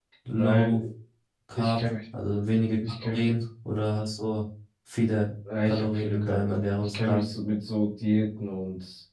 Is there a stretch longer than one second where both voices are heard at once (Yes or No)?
Yes